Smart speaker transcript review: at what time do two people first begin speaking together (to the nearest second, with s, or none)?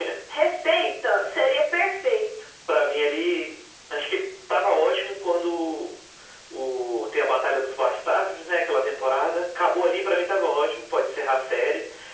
none